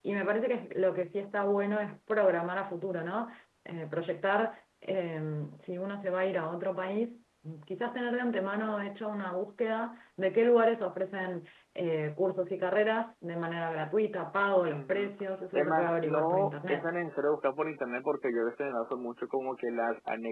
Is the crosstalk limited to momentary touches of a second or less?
No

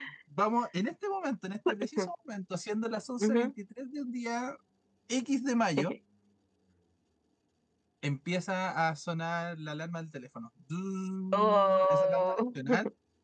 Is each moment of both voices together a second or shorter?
No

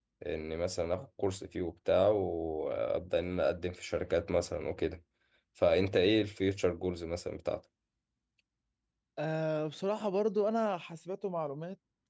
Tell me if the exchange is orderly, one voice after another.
Yes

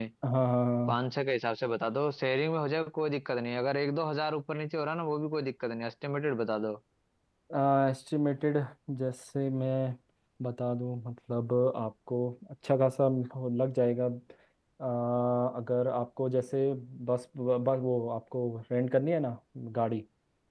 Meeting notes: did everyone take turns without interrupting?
Yes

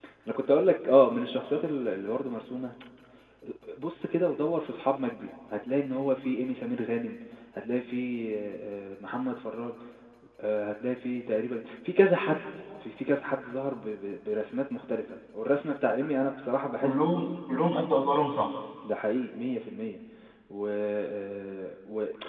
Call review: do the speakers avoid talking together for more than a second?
Yes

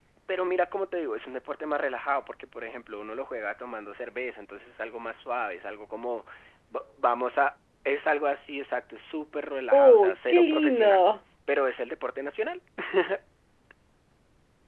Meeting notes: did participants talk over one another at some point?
Yes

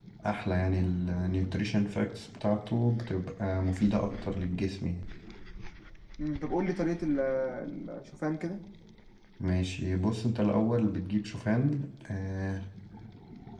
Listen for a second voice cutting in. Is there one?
No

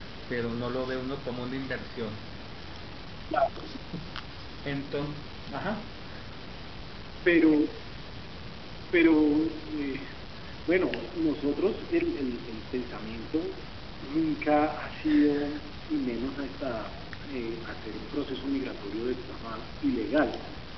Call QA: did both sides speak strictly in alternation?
Yes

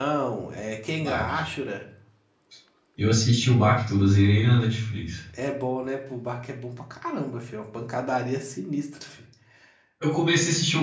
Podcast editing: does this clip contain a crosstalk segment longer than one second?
No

